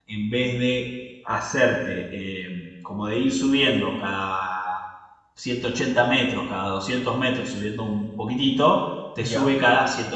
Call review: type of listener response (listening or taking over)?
listening